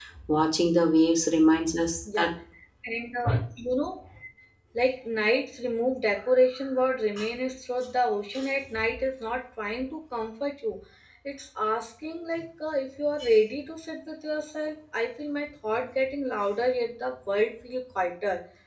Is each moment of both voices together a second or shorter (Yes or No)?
Yes